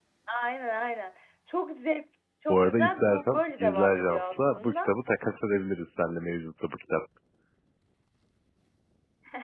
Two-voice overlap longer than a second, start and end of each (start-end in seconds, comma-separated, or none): 2.5-4.9